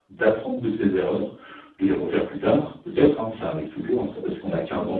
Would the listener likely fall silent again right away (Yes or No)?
Yes